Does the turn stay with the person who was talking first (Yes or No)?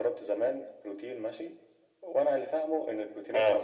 Yes